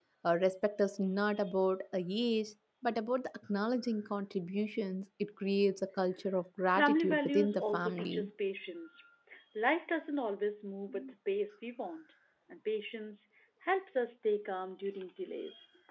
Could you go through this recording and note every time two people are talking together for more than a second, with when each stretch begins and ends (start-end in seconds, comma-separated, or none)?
6.7-8.3